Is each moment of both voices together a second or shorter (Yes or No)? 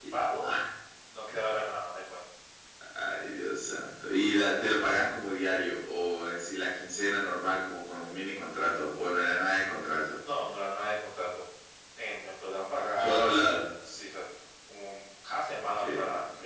Yes